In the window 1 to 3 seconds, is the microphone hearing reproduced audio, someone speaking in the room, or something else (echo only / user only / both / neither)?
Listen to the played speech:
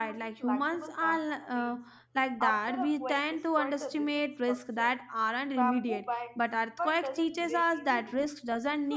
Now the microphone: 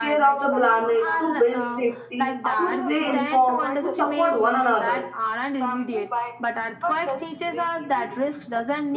both